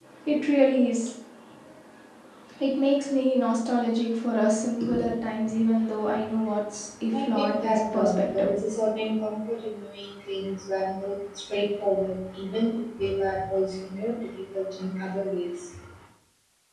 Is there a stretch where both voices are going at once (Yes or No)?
Yes